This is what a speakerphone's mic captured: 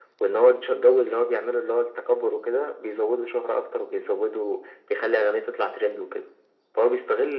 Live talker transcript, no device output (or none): none